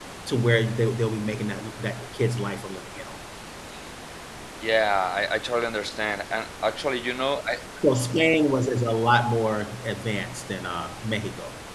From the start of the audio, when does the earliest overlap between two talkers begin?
none

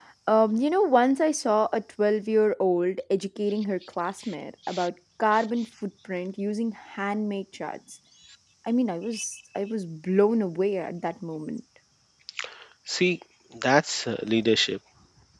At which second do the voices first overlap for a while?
none

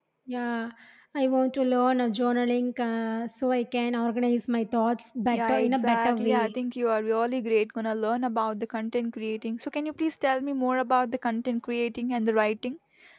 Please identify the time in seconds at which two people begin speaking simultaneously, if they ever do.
5.3 s

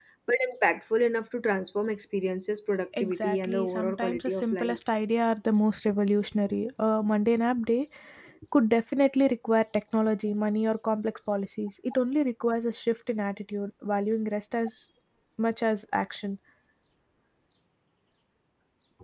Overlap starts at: 2.9 s

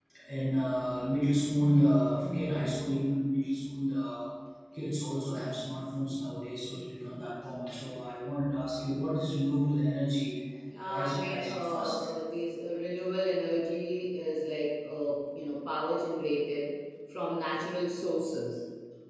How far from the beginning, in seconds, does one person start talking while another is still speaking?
10.8 s

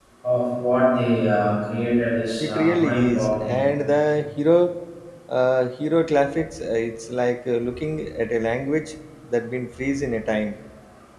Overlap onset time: 2.4 s

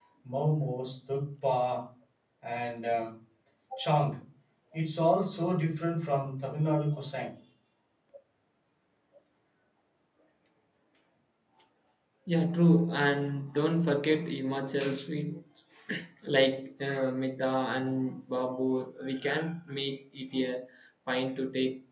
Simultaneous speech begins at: none

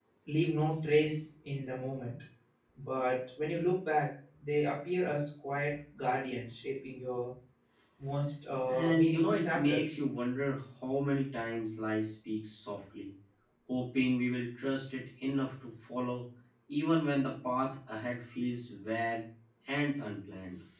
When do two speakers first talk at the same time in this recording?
8.7 s

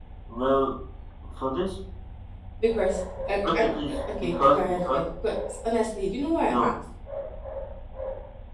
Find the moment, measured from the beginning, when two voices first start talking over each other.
3.5 s

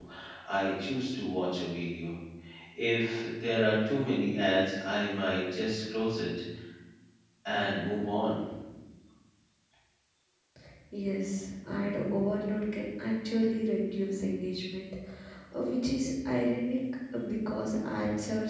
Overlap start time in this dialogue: none

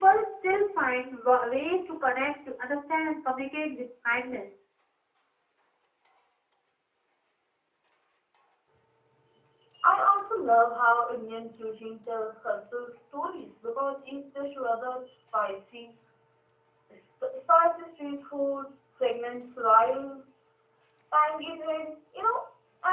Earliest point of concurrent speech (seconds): none

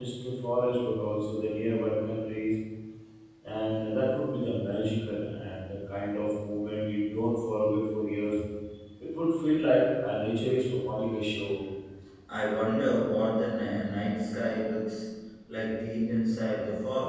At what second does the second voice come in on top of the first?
none

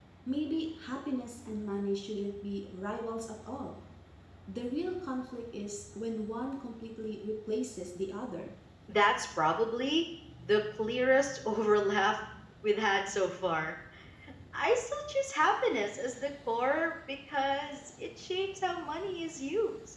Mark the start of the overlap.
none

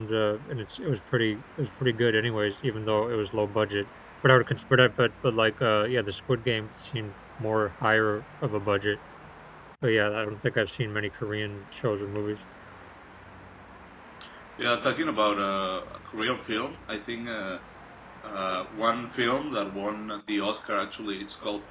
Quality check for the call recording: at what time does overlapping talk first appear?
none

